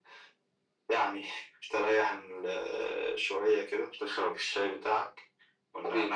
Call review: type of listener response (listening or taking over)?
listening